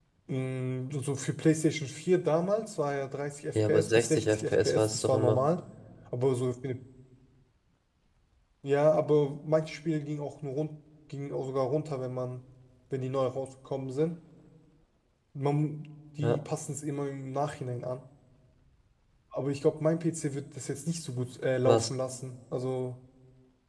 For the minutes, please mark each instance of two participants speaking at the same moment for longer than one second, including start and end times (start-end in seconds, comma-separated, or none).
3.5-5.4